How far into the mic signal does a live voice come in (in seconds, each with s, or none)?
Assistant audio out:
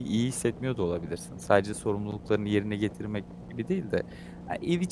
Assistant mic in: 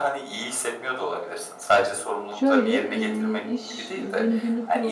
2.3 s